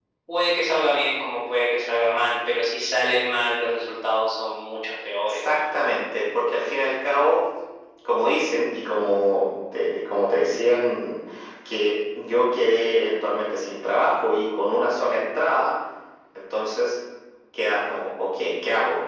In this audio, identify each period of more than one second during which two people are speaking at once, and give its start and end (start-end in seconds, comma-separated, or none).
none